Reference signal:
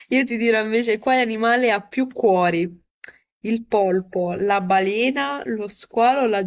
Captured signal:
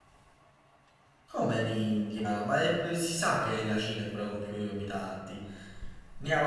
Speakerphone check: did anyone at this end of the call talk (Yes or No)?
Yes